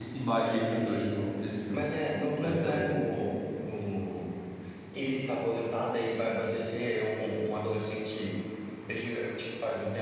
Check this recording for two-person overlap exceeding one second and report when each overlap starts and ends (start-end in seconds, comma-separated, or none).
none